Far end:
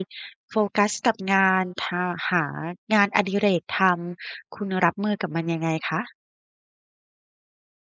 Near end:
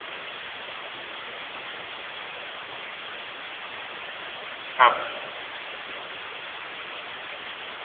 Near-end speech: present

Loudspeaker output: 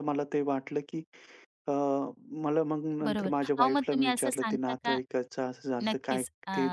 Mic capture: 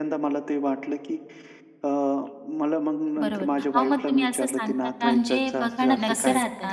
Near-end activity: present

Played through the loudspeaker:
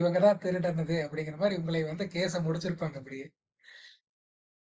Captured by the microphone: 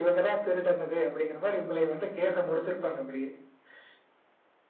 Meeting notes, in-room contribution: none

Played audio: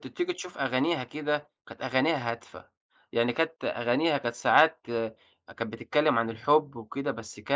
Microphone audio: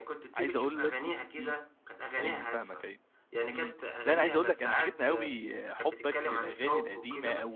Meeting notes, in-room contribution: present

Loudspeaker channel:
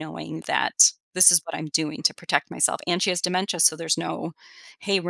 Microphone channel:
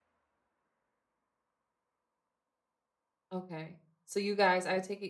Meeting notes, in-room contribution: present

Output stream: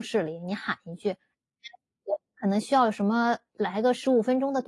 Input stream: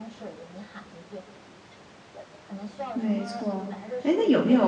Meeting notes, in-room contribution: present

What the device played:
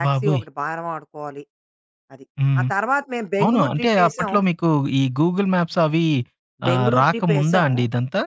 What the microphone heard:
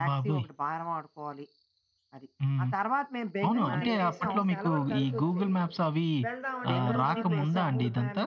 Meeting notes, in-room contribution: present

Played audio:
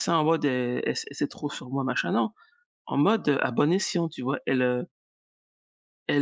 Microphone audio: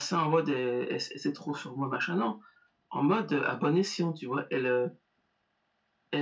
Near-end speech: none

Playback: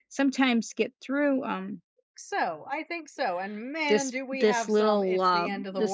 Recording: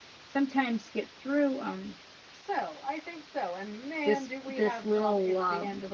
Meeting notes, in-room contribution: none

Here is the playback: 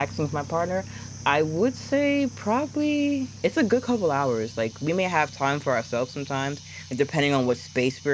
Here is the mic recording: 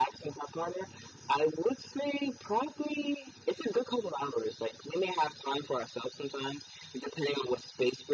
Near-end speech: none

